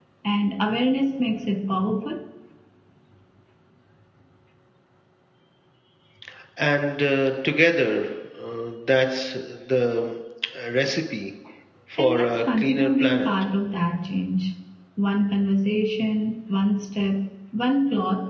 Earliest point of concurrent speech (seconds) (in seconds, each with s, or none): 12.0 s